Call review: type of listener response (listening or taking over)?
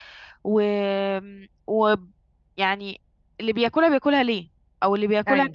listening